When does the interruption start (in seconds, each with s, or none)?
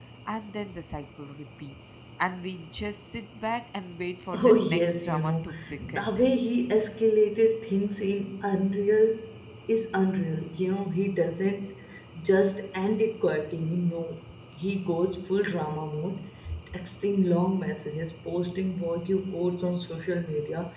4.3 s